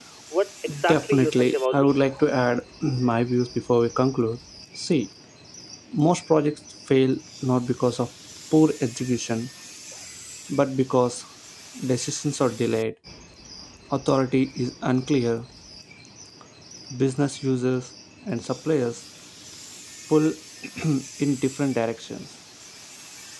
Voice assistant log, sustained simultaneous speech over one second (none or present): present